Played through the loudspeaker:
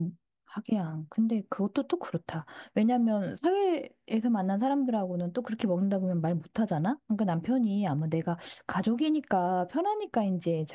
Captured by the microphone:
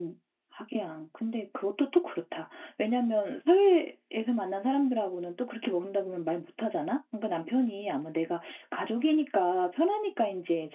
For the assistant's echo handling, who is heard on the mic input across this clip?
echo only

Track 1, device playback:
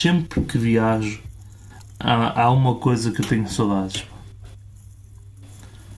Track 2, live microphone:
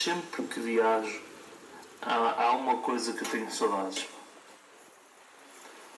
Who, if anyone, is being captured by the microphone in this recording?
echo only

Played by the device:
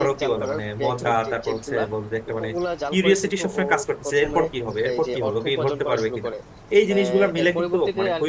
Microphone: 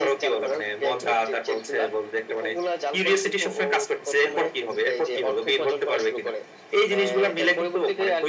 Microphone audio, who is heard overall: echo only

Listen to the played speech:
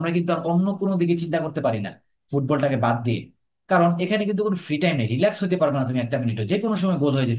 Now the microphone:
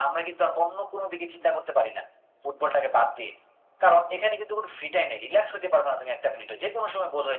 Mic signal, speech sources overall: echo only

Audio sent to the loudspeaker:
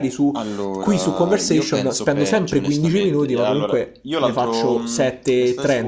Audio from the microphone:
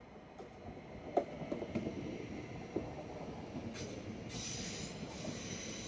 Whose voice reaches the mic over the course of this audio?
neither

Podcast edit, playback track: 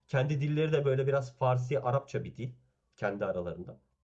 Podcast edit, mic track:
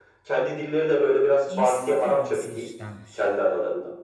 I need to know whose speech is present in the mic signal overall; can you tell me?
both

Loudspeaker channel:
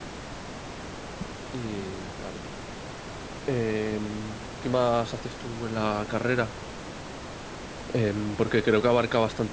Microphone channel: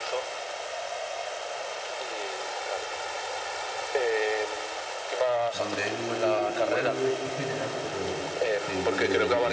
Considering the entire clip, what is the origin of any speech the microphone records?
both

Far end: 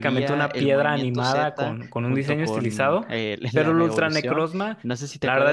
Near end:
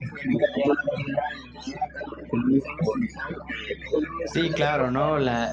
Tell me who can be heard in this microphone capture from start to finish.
both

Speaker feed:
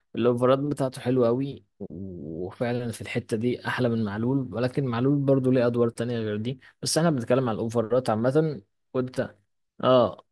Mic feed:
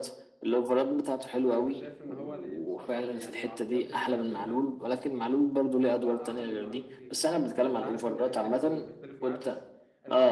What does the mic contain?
both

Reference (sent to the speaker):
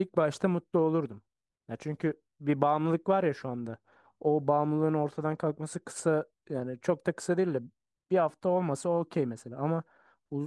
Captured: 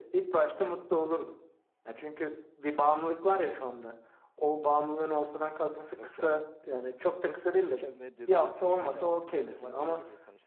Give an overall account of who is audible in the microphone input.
both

